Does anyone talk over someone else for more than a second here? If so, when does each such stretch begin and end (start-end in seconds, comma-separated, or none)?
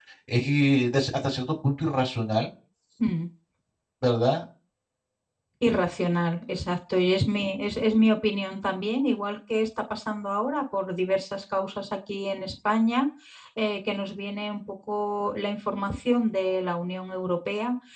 none